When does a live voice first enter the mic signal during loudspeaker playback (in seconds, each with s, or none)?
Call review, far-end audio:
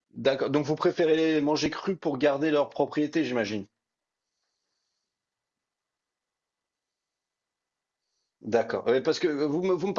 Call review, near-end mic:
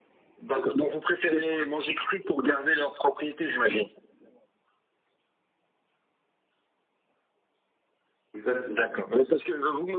8.3 s